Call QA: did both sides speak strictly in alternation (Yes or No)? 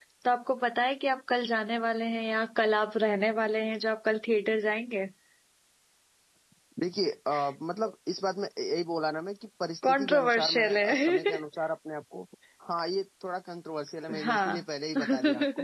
No